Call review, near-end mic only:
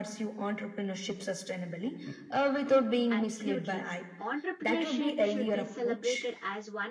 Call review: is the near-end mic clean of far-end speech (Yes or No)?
No